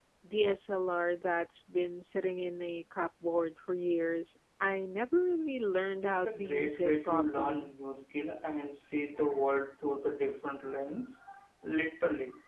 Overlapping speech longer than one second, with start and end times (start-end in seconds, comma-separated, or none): 6.0-7.7